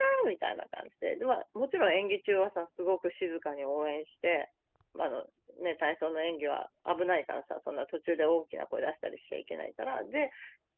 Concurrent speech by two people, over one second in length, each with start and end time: none

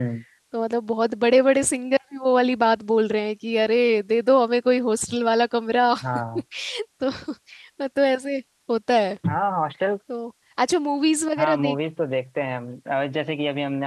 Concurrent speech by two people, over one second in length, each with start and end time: none

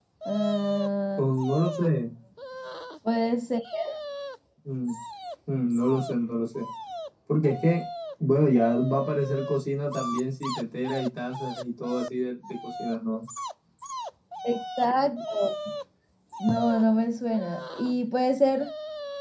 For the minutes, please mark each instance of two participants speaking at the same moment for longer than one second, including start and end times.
none

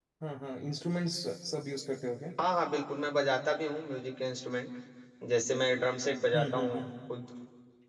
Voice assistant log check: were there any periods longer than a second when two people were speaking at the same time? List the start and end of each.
none

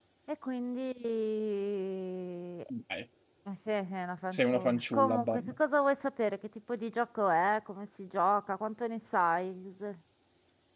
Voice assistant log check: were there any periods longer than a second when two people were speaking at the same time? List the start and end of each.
4.3-5.5

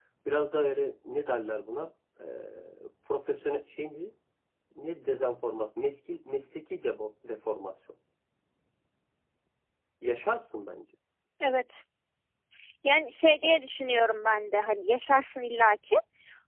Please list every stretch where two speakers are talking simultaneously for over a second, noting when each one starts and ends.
none

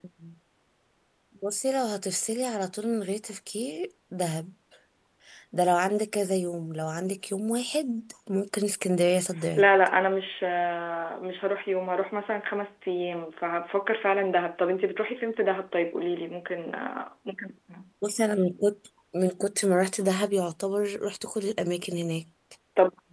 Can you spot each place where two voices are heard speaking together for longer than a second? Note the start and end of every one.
none

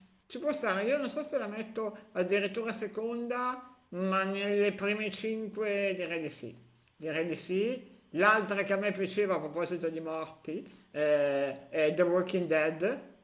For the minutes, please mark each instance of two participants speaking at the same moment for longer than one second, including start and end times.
none

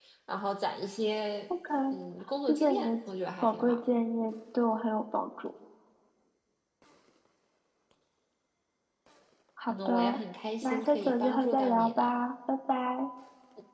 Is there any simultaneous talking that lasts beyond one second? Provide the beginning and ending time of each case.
10.6-12.1

